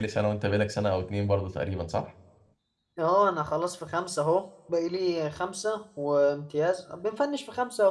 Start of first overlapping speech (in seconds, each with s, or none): none